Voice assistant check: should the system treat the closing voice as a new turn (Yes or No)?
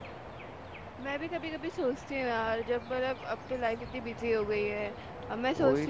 No